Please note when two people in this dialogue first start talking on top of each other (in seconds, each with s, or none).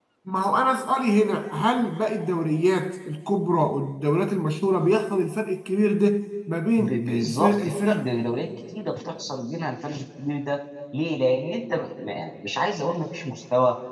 6.8 s